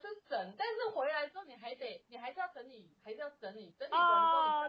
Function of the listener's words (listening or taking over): taking over